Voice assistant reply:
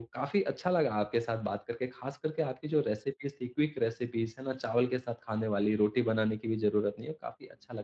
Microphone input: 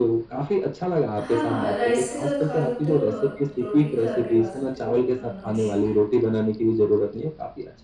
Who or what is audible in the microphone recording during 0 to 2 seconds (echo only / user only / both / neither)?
both